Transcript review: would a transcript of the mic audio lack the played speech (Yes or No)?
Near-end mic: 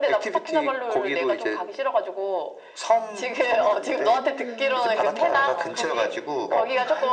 No